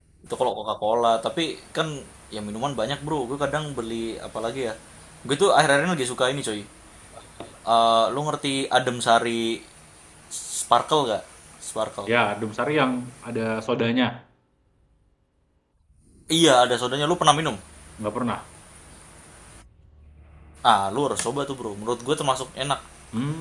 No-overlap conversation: Yes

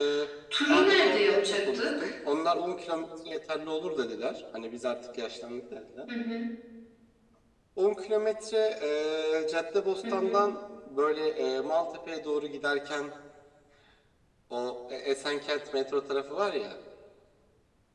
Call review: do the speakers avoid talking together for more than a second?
No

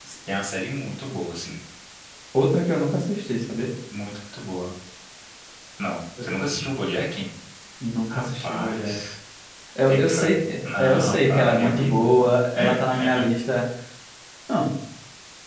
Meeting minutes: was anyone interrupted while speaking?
Yes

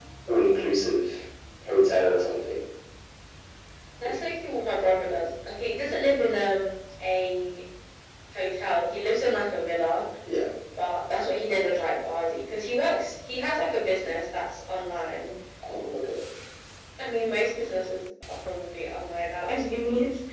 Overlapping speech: No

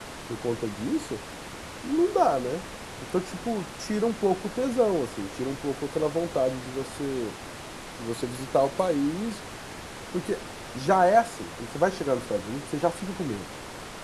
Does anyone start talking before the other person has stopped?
No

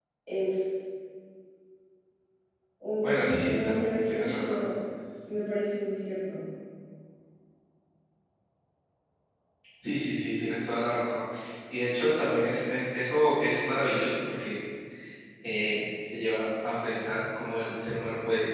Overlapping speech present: Yes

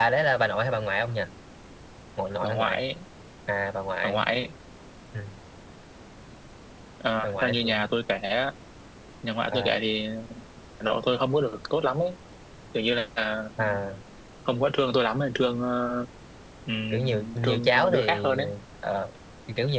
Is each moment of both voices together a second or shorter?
No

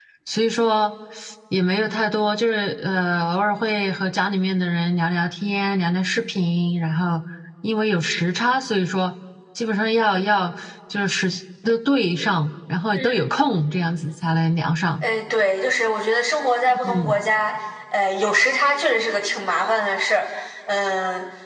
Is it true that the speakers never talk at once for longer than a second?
Yes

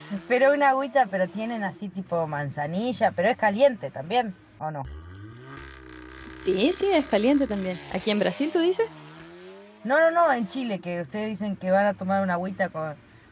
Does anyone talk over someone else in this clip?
No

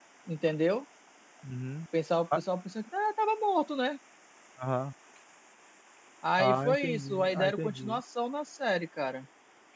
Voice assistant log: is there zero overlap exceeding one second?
No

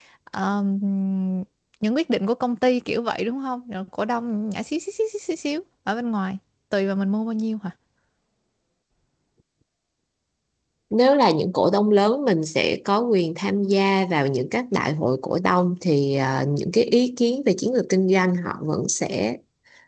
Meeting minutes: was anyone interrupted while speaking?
No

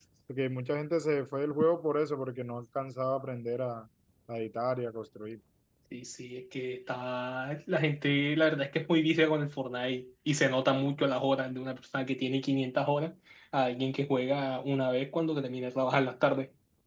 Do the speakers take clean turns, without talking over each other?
Yes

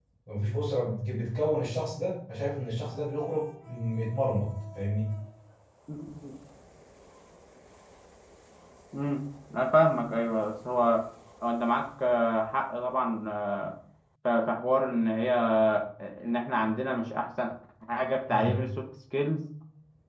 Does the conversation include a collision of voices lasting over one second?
No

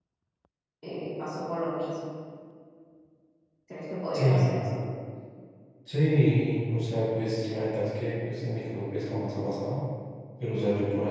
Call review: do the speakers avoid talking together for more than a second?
Yes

